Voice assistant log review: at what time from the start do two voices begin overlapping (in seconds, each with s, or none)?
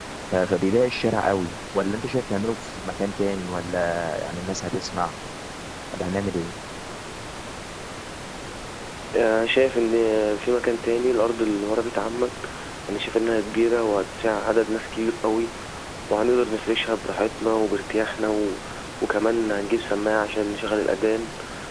none